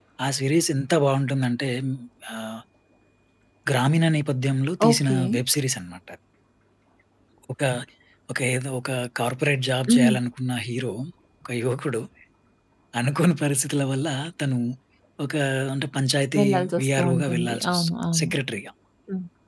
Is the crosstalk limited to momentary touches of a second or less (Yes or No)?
No